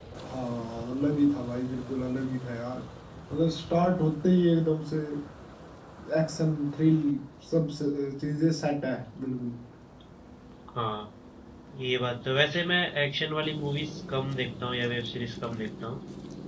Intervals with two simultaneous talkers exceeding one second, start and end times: none

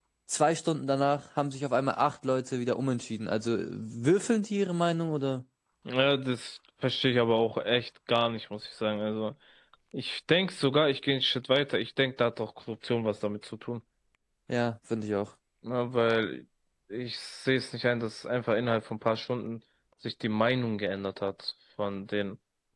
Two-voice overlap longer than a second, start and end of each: none

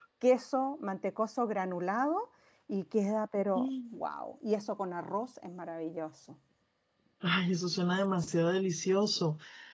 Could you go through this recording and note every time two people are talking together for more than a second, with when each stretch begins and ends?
none

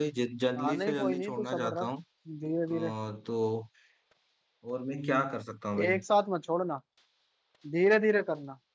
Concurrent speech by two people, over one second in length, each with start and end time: 0.6-1.9

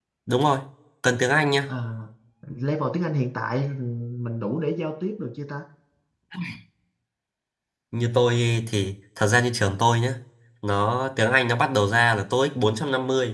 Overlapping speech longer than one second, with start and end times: none

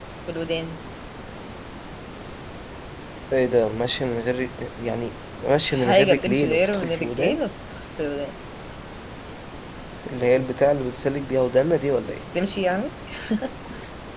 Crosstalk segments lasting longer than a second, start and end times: 5.6-7.4

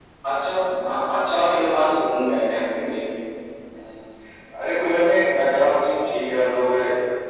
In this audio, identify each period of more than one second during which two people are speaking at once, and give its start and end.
none

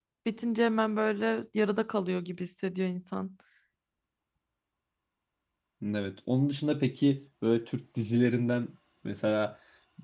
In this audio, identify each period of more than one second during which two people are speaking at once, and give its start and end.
none

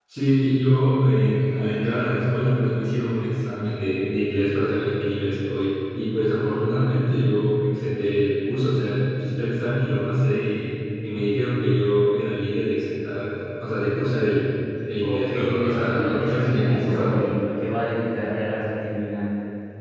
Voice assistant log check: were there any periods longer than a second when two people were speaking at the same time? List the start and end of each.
15.0-17.2

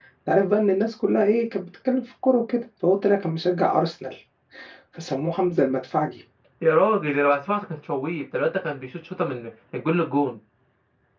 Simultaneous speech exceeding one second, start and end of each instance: none

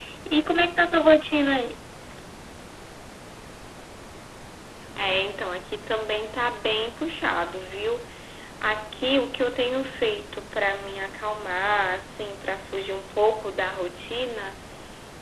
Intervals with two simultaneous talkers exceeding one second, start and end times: none

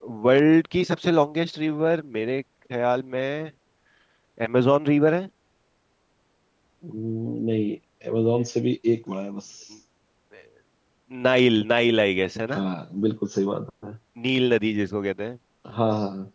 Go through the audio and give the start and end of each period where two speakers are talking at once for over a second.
none

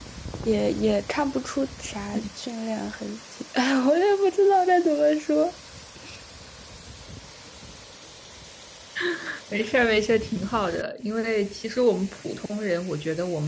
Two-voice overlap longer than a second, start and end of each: none

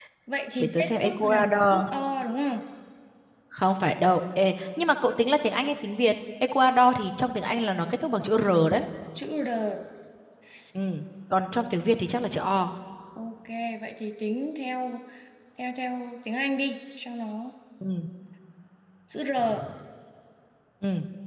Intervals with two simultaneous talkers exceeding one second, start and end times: 0.6-1.8

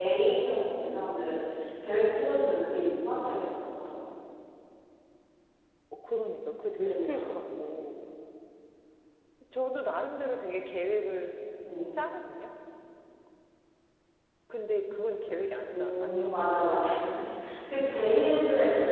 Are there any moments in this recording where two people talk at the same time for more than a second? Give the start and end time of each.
15.7-16.9

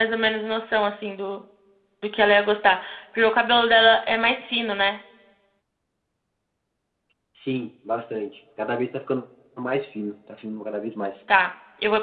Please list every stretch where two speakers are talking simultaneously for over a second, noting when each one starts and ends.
none

